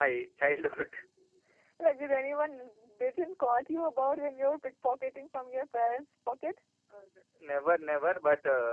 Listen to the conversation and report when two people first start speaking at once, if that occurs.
none

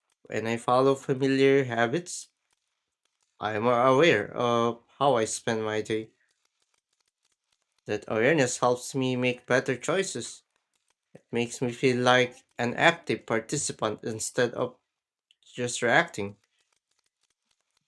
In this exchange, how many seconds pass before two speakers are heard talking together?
none

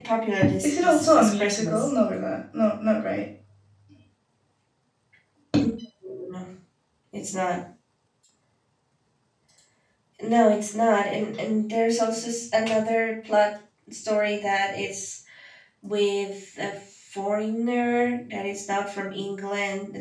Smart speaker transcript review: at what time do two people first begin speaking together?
0.6 s

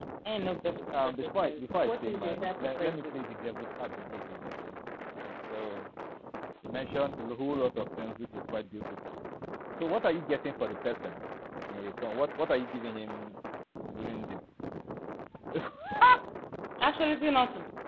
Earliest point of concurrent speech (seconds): 1.0 s

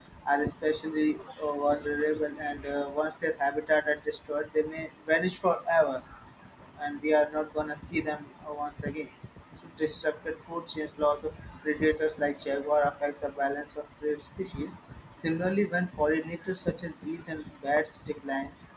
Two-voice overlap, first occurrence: none

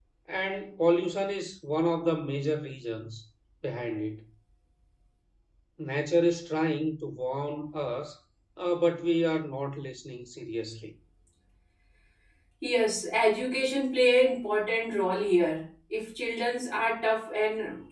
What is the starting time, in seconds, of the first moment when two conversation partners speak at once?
none

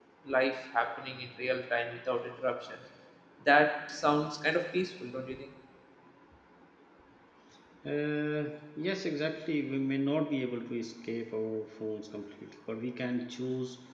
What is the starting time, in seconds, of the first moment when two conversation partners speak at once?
none

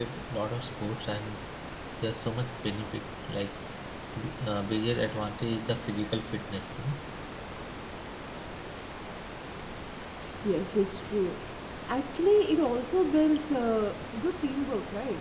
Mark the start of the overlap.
none

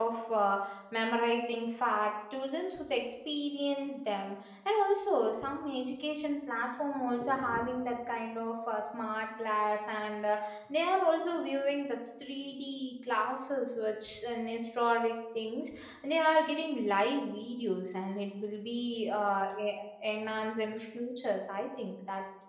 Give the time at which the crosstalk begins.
none

